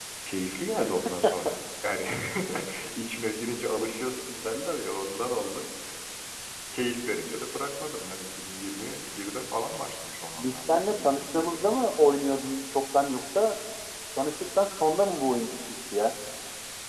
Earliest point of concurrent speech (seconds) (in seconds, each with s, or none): 10.4 s